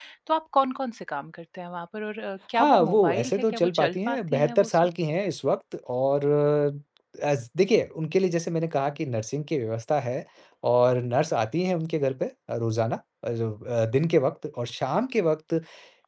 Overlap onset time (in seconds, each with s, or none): 2.5 s